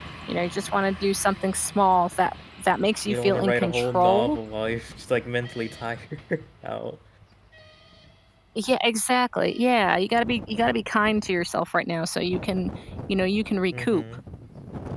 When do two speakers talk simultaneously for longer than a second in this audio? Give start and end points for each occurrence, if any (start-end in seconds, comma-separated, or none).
3.1-4.4